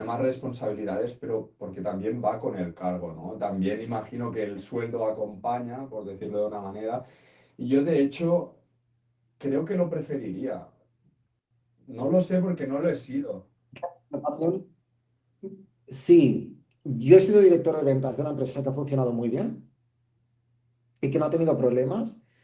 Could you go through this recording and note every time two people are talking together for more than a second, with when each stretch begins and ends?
none

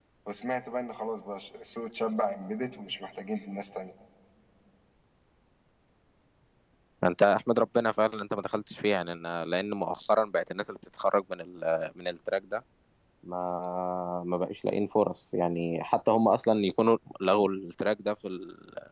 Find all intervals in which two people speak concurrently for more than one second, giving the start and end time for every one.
none

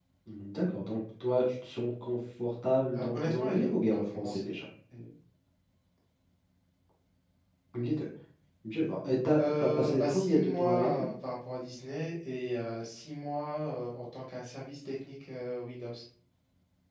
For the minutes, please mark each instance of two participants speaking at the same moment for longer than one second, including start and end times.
2.9-4.6, 9.4-11.1

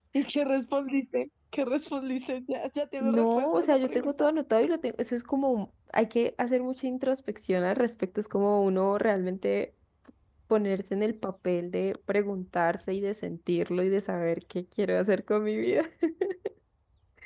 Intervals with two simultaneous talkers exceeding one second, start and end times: 3.0-4.3

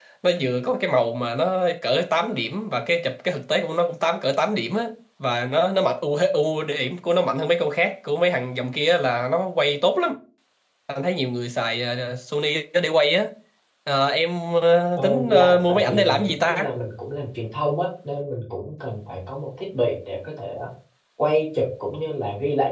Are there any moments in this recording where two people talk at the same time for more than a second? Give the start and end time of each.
15.0-16.7

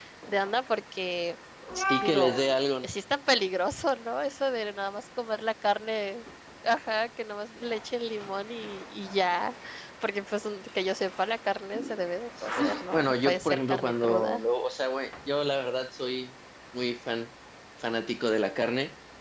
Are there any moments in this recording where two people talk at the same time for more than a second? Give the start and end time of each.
12.6-14.4

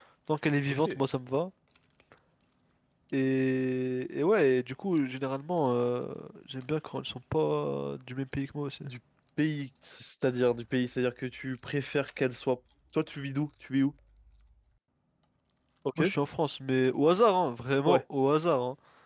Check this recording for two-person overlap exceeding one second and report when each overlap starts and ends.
none

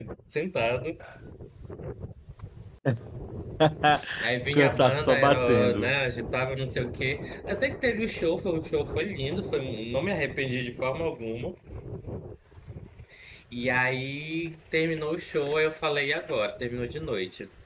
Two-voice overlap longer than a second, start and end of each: 4.5-6.0

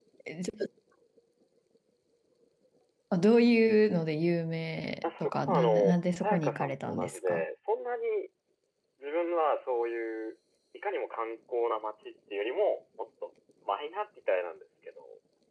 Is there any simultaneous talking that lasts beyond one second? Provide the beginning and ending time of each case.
5.0-7.4

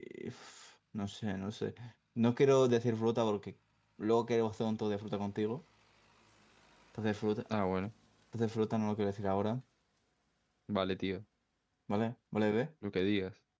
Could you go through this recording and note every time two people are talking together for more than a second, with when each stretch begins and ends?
none

